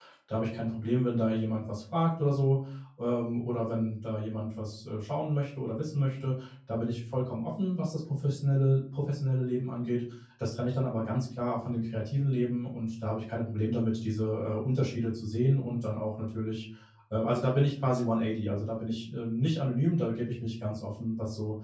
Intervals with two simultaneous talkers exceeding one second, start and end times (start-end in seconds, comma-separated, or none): none